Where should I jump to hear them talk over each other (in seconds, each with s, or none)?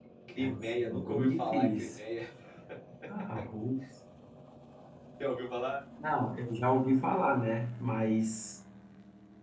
0.6 s